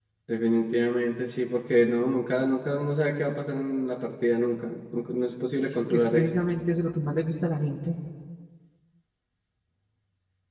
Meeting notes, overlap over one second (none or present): none